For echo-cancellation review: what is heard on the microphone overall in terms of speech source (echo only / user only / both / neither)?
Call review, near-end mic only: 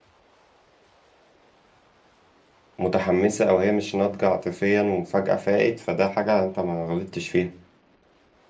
user only